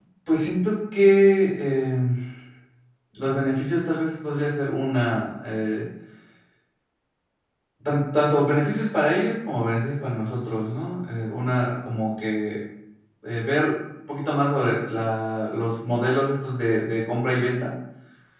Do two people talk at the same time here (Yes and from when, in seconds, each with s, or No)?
No